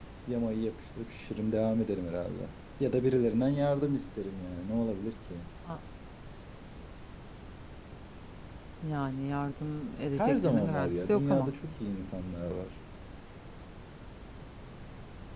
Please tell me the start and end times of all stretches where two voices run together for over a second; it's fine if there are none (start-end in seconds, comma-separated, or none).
10.2-11.5